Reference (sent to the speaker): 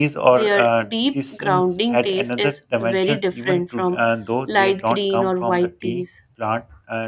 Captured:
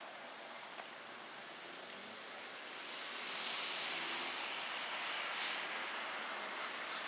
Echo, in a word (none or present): none